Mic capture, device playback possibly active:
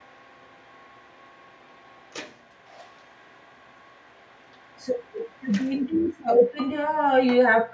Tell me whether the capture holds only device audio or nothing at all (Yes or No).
No